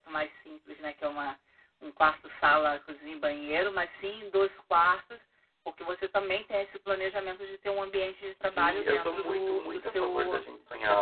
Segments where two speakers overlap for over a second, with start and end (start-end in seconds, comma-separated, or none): 8.5-10.4